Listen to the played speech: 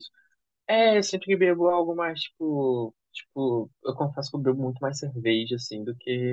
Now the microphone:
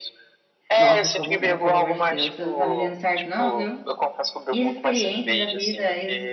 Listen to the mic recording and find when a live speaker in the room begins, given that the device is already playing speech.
0.8 s

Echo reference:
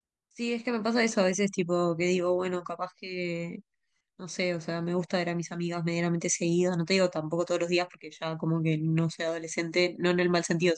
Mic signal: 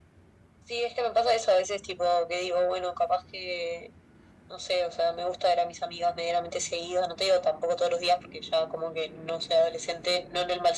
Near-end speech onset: none

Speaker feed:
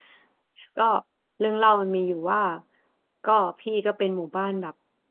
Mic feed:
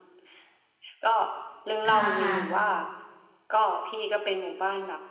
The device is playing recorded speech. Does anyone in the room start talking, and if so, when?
1.9 s

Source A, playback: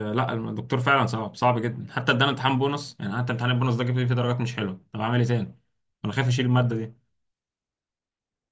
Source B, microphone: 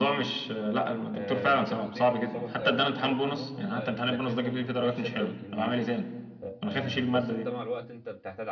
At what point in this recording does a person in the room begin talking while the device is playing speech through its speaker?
1.2 s

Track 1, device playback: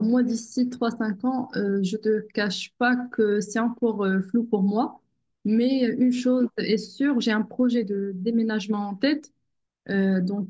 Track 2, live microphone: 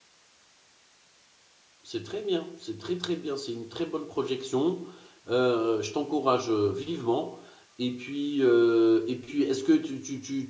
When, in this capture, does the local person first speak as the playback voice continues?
1.8 s

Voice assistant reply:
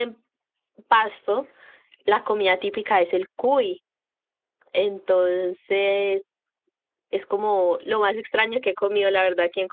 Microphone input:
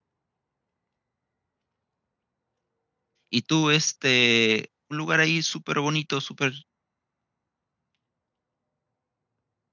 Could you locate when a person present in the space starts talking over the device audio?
3.3 s

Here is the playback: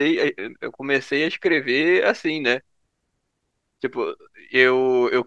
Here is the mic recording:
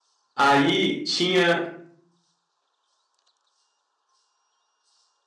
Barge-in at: 0.3 s

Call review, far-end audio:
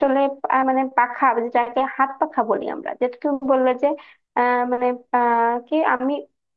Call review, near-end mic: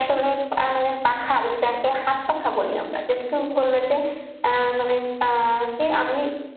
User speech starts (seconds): none

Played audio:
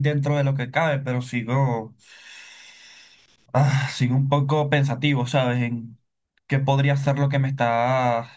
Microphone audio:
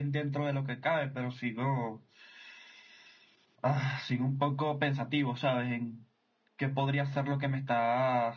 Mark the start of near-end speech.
none

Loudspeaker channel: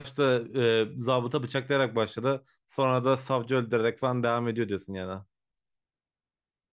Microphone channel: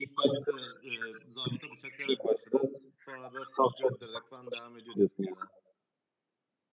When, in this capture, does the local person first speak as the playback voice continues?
none

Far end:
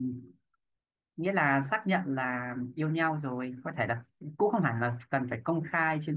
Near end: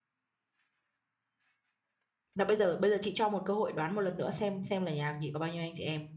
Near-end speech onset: 2.3 s

